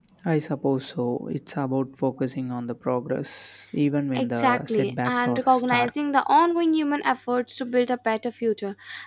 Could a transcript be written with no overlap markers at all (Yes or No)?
No